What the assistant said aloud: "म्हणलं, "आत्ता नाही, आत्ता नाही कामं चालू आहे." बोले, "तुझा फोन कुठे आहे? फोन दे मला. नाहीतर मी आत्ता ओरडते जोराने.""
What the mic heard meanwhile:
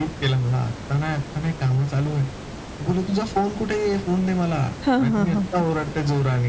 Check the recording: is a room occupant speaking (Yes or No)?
Yes